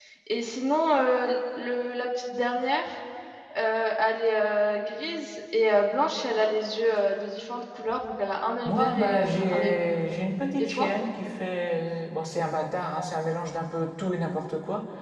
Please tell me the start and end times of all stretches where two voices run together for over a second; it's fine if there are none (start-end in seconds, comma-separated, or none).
8.7-9.9